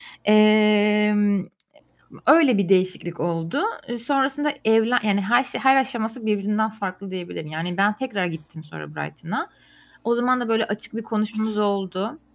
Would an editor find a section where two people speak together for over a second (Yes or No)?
No